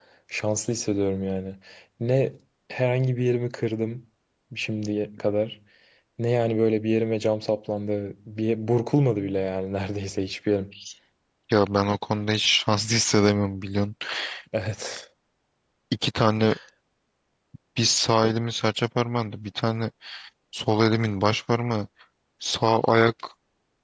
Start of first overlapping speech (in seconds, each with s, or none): none